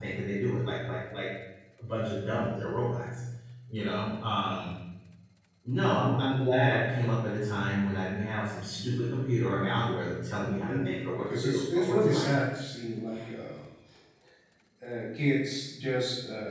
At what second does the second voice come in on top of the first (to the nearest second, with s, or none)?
10 s